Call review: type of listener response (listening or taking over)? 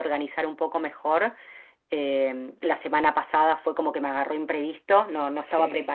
listening